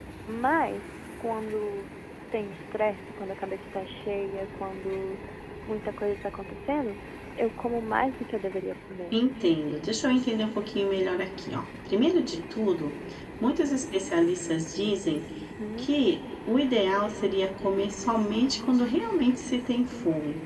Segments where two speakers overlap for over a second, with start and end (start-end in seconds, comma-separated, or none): none